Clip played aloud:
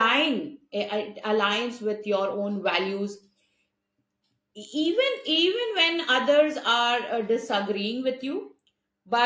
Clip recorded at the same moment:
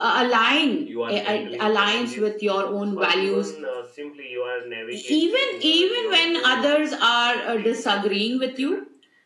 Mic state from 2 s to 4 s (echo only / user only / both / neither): both